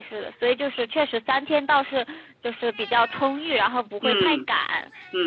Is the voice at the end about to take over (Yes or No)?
Yes